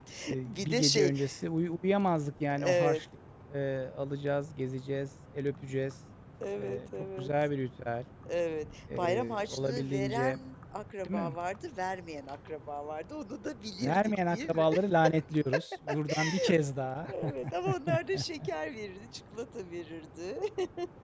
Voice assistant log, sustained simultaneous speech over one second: present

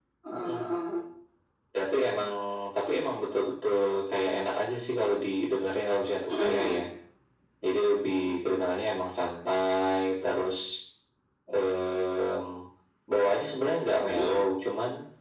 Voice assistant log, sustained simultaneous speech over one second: none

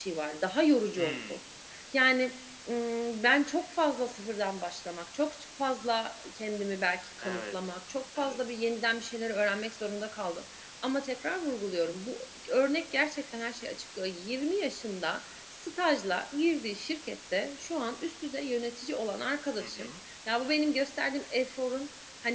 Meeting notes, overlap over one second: none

